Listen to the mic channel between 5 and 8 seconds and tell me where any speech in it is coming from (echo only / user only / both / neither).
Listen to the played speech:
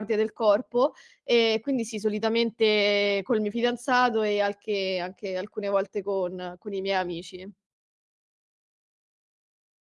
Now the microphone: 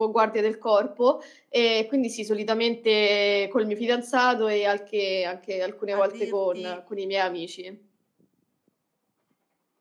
both